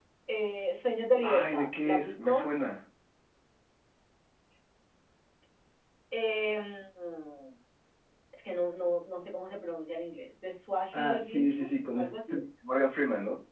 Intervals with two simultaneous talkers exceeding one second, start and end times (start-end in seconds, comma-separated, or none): 1.2-2.4, 10.9-12.4